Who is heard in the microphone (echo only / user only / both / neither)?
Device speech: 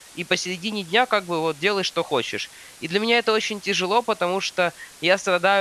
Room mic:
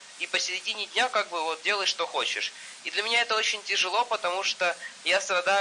echo only